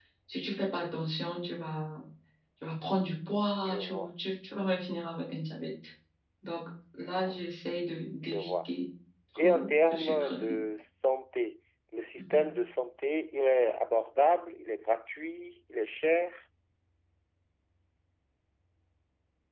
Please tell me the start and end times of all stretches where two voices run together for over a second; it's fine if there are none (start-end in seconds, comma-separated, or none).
9.4-10.6